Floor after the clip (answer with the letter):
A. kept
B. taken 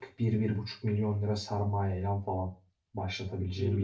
B